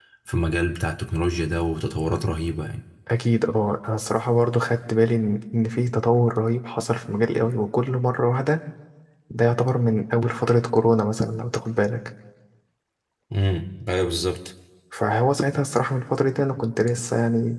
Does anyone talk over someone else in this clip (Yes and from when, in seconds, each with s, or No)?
No